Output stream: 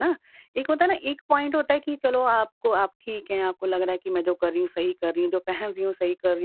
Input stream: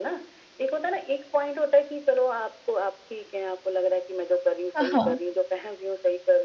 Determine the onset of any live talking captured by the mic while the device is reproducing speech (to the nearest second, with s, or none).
5 s